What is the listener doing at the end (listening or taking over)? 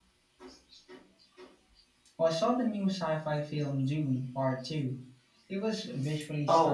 taking over